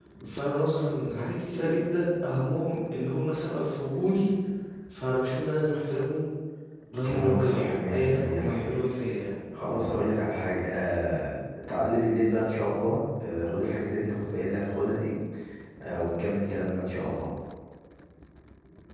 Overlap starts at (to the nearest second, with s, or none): 7 s